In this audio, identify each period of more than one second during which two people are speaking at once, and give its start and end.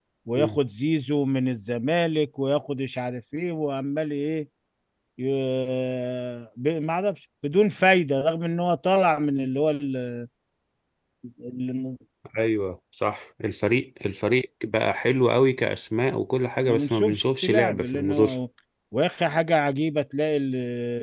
16.6-18.3

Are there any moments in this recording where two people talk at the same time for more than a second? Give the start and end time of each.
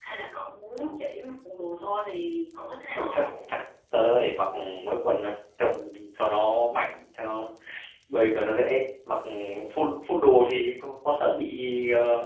none

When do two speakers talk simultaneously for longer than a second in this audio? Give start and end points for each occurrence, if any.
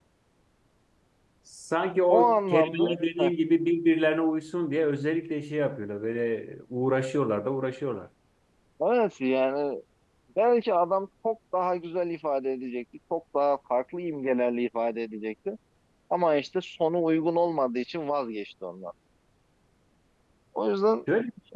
2.1-3.3

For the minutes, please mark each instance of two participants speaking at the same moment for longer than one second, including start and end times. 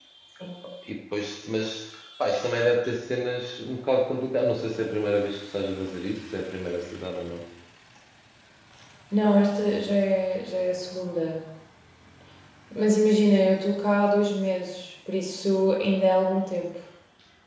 none

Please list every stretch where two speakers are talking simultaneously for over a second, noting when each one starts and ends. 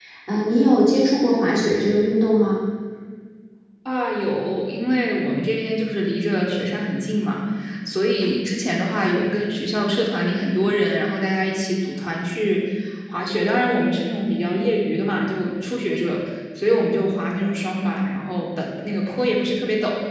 none

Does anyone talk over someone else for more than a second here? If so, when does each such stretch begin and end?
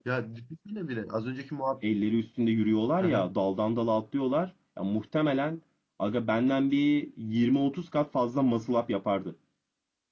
none

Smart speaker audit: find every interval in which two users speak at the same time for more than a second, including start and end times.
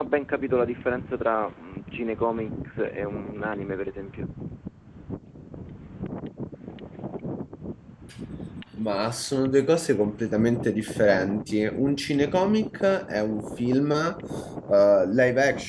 none

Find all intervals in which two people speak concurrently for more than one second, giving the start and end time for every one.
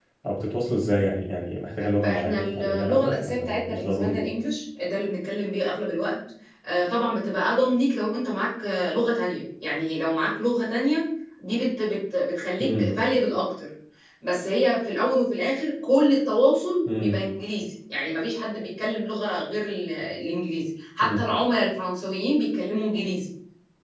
2.0-4.2

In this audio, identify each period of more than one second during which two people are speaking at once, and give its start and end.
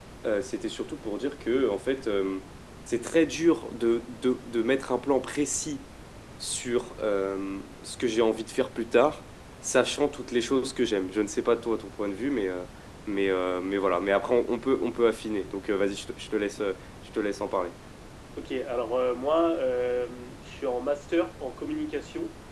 none

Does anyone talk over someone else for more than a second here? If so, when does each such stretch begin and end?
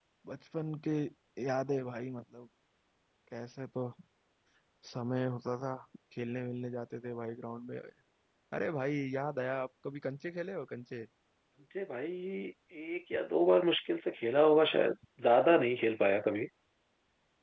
none

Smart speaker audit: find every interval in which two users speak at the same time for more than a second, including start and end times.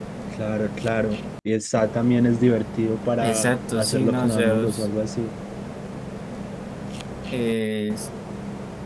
3.2-4.9

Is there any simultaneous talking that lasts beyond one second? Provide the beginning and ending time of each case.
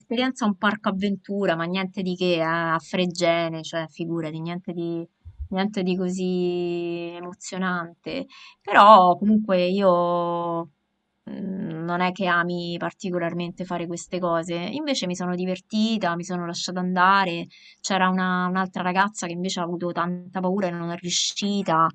none

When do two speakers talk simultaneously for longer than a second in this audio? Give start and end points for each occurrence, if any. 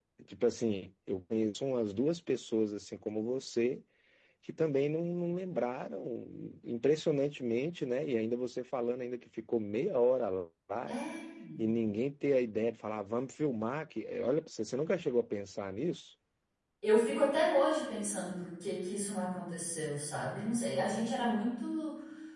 none

